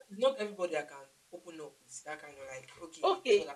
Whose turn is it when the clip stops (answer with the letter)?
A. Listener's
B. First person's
A